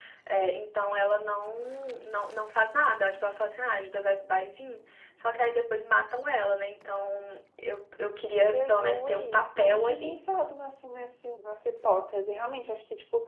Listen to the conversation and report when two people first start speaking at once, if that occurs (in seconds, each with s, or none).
8.4 s